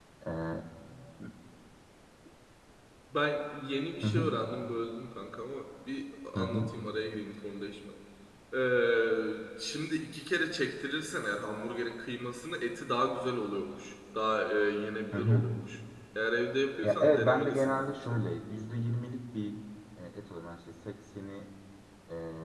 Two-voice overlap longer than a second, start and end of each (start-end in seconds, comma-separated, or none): 16.8-18.1